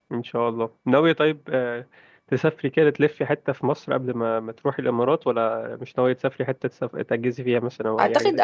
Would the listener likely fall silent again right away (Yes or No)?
No